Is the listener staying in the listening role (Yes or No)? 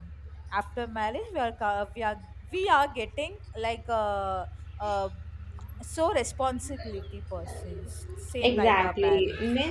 No